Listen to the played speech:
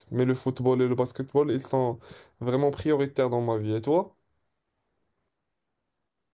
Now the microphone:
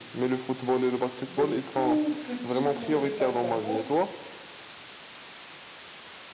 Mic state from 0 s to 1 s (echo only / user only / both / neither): echo only